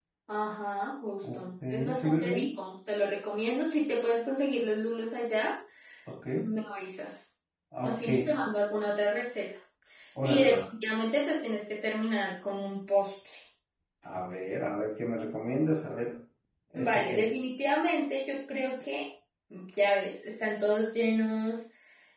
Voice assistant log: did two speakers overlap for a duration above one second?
Yes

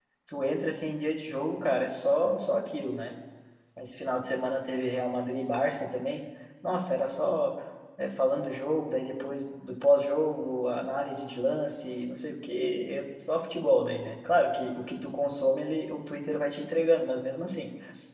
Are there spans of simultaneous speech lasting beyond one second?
No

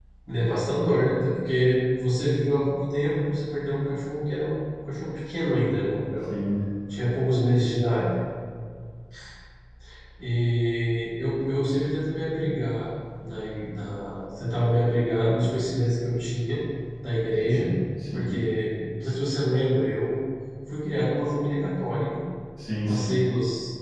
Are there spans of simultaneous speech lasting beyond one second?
No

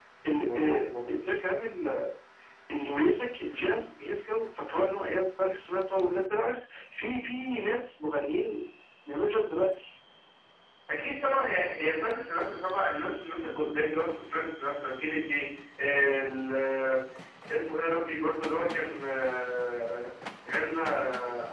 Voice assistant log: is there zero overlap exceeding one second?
Yes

